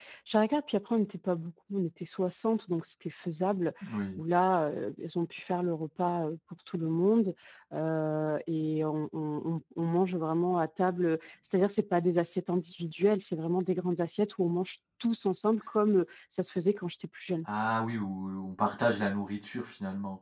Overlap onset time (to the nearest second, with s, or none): none